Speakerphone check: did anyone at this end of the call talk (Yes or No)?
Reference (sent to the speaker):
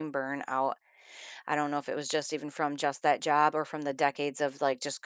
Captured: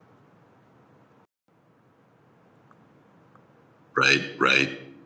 Yes